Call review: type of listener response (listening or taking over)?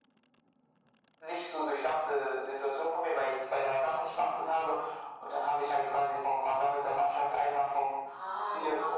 listening